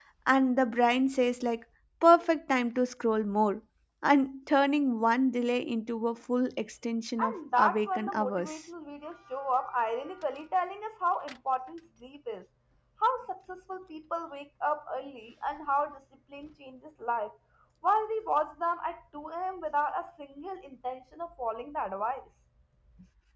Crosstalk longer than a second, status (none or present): present